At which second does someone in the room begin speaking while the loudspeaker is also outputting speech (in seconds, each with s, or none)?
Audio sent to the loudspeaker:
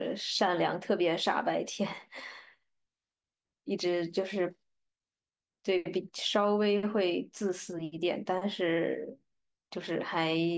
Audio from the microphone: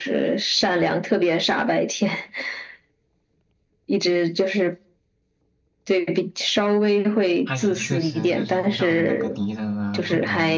7.4 s